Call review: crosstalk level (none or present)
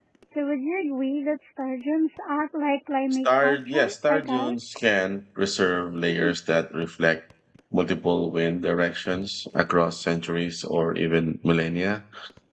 present